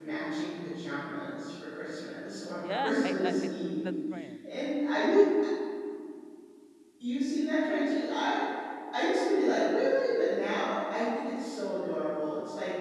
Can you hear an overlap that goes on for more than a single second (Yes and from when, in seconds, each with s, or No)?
Yes, from 2.6 s